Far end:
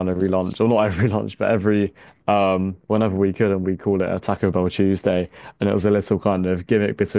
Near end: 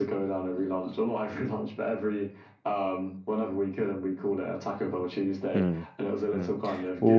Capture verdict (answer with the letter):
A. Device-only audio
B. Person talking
B